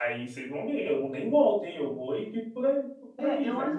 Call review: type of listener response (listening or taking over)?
taking over